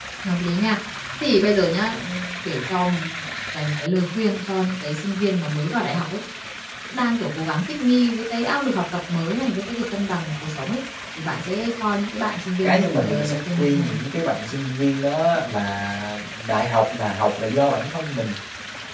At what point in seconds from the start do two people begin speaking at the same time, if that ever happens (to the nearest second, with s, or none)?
13 s